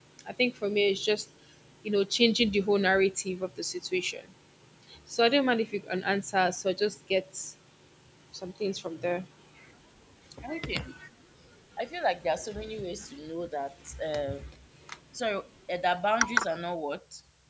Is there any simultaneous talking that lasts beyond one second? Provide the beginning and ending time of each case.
none

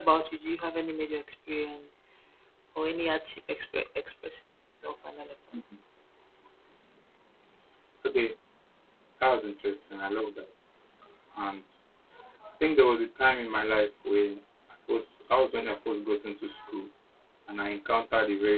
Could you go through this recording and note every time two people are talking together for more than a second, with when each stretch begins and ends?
none

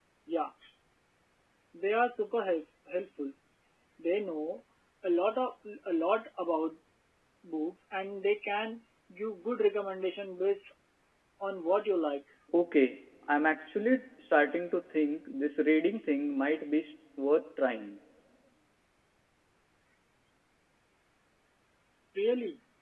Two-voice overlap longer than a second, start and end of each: none

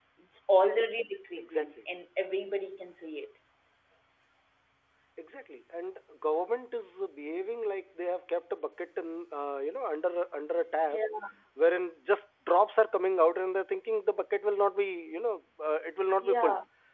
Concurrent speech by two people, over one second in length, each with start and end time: none

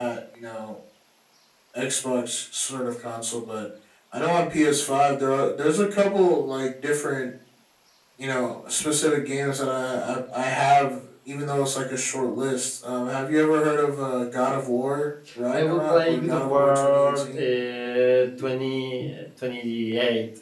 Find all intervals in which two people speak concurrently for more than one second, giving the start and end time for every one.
15.5-17.4

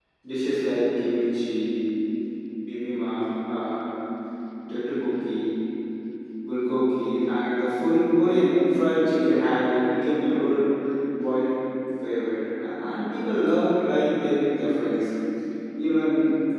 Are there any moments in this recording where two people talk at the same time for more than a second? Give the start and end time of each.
none

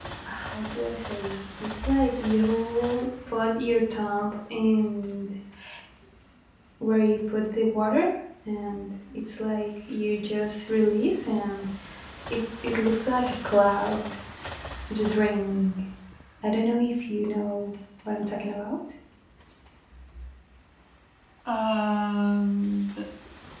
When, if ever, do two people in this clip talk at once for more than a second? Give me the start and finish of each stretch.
none

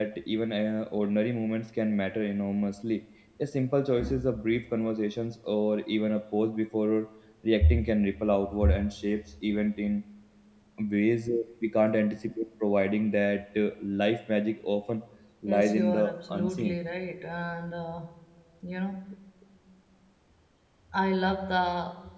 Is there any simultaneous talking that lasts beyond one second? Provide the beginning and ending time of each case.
15.5-16.8

